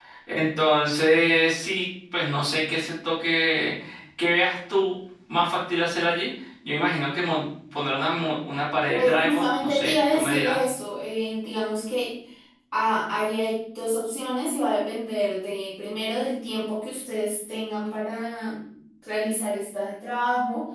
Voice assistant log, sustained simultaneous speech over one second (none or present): present